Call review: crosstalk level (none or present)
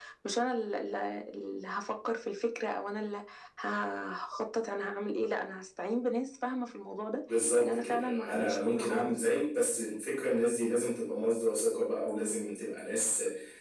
present